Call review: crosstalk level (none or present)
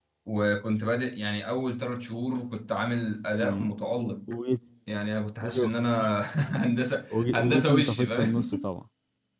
present